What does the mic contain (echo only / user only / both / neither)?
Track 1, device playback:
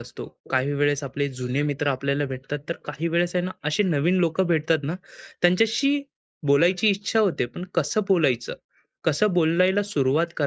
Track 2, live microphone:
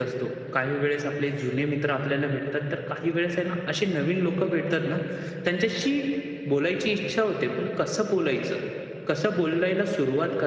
echo only